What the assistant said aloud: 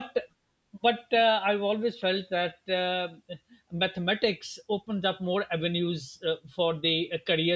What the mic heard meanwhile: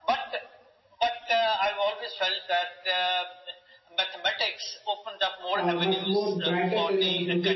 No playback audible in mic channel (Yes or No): No